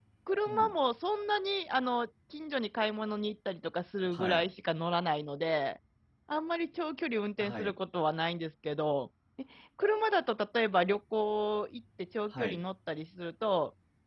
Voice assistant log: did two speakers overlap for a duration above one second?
No

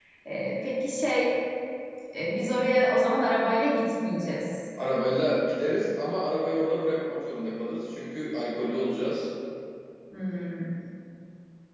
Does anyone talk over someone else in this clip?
No

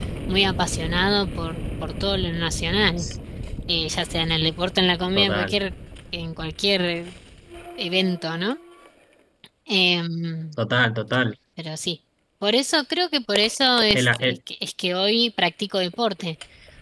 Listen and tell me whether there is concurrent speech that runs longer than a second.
No

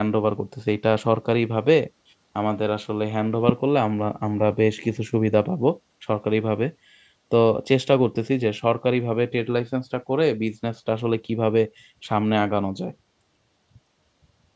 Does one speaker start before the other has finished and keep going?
No

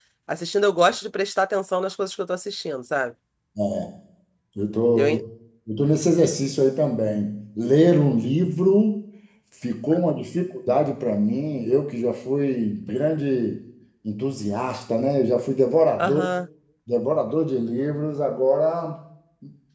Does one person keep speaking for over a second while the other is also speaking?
No

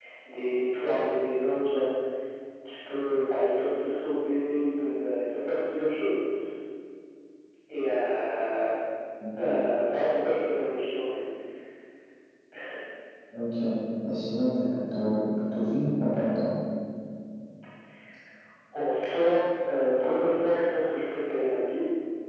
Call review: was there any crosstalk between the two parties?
No

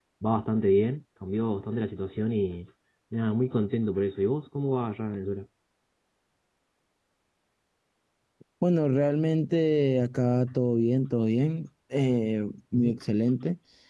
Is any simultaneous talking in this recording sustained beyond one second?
No

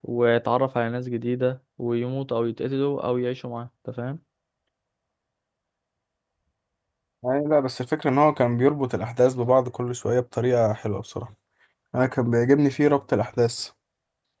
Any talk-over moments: No

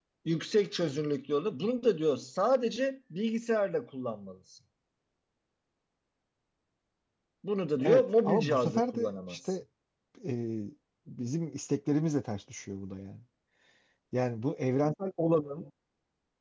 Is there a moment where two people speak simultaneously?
Yes, from 7.8 s

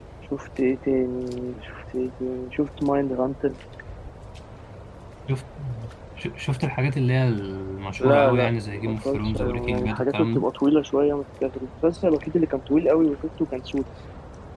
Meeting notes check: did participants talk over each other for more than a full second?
Yes, from 8.0 s

